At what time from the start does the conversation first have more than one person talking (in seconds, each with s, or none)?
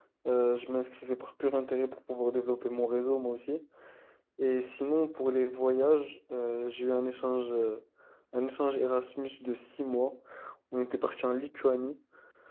none